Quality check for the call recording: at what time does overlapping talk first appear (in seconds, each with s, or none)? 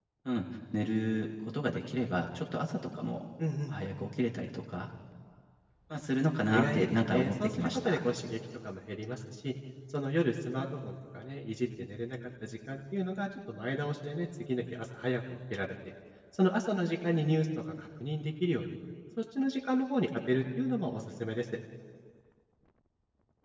6.5 s